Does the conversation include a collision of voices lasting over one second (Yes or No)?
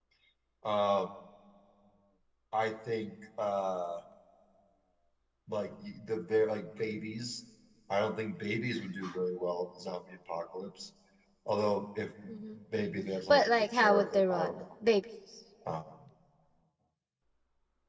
Yes